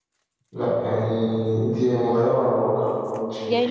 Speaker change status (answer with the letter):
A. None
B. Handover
B